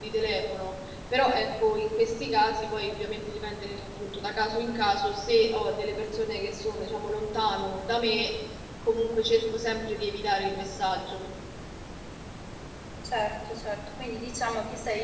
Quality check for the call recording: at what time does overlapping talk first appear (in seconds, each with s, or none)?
none